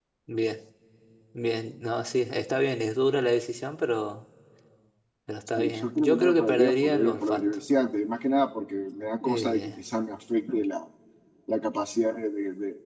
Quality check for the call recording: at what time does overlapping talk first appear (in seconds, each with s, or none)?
5.6 s